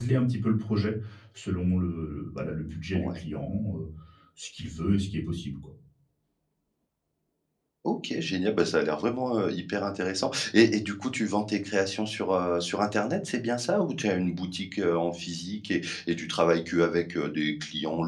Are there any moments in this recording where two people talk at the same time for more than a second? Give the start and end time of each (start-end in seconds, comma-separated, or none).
none